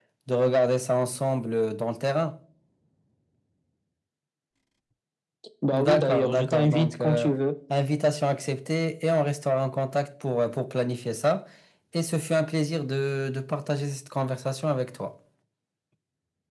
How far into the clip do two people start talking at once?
5.7 s

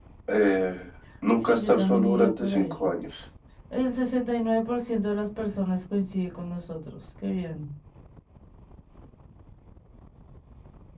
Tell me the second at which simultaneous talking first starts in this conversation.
1.4 s

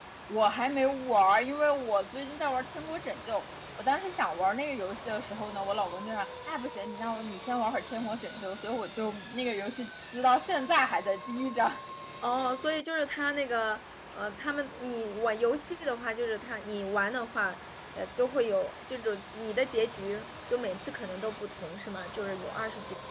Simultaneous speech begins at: none

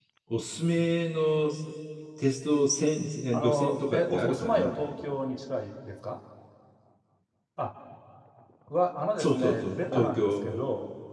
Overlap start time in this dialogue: 3.3 s

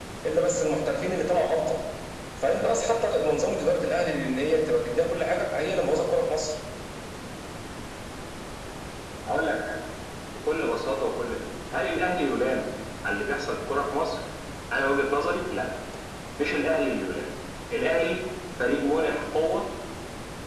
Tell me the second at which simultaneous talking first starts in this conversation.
none

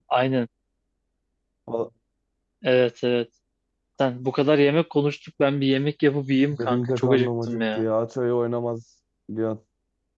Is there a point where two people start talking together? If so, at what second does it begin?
6.5 s

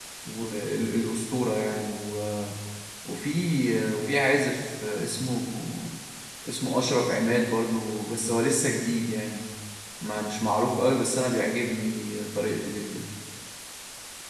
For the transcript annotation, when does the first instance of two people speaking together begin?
none

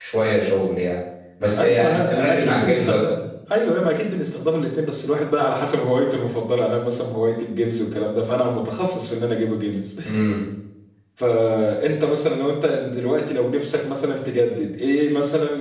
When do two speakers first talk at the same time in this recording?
1.6 s

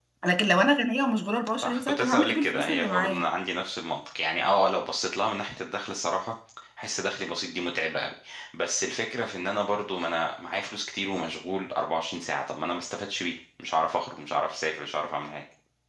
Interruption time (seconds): 1.6 s

